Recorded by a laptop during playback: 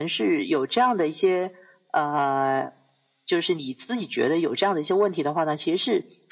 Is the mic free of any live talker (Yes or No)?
Yes